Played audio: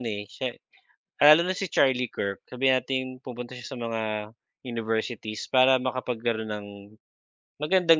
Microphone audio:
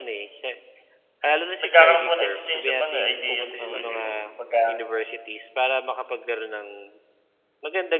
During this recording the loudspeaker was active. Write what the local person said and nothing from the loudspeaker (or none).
nagkakaroon po ng exchange of ano, eh, ideas po, eh, 'di ba po pagka